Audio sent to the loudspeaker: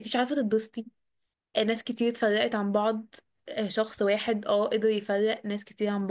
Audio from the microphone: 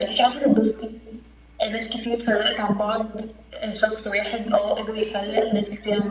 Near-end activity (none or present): present